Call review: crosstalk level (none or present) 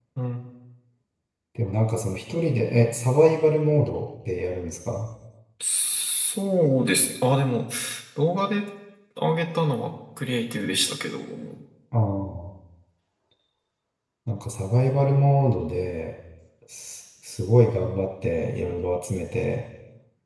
none